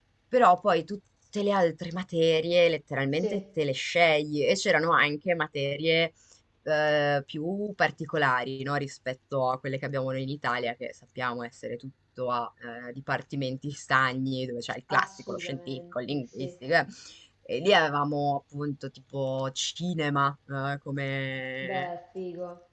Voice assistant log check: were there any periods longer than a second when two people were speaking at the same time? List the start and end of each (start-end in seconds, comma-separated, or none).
14.9-16.5